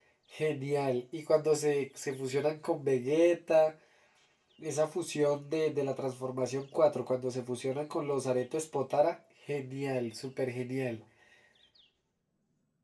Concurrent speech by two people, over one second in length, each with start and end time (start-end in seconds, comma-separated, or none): none